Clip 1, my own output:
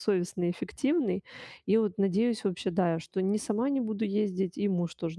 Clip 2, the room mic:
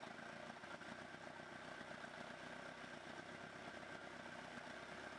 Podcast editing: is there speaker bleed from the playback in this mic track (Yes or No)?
No